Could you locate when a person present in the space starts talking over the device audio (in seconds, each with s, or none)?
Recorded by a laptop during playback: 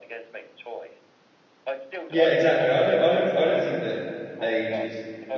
2.1 s